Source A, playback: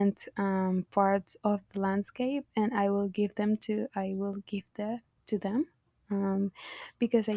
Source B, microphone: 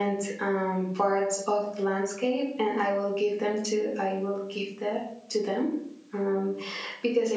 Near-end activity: none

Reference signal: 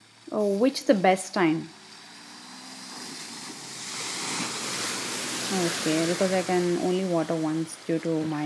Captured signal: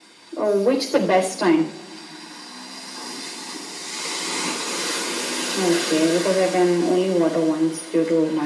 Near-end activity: none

